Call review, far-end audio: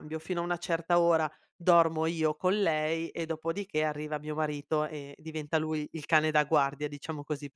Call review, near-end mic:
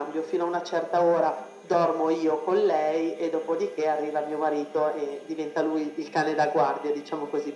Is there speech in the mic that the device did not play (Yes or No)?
No